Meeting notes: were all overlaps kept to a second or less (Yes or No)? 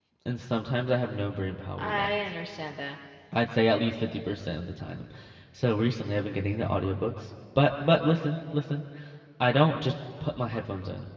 Yes